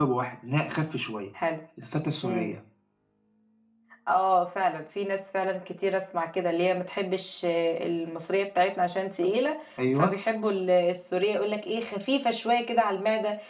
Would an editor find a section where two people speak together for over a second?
No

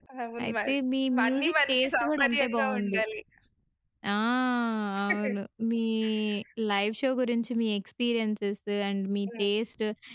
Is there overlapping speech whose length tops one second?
Yes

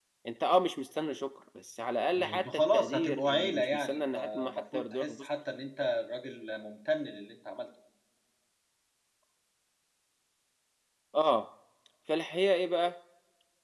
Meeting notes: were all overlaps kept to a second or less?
No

